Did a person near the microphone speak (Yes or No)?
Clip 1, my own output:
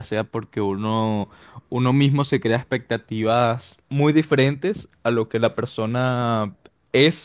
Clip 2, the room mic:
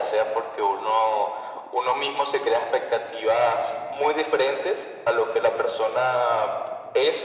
No